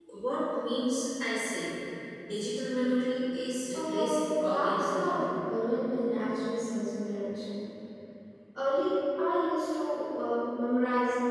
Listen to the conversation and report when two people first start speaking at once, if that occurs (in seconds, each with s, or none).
3.7 s